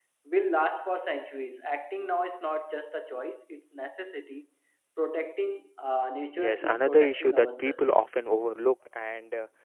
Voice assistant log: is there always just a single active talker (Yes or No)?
No